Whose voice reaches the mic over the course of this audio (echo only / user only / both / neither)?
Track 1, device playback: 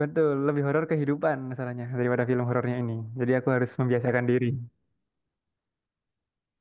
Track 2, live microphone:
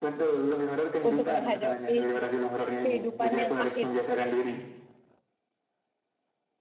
both